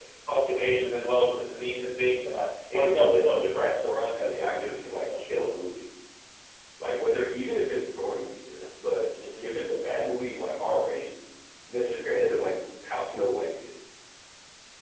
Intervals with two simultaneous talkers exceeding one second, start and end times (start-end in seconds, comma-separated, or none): 2.7-5.2